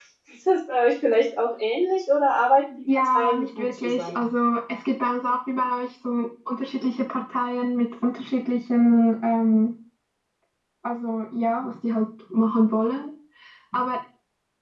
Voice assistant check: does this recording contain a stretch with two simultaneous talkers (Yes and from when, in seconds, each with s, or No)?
Yes, from 2.9 s